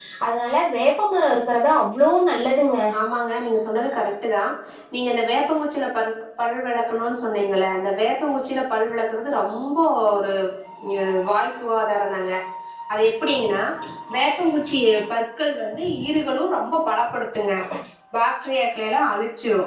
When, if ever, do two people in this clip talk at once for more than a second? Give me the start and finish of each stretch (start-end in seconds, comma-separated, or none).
none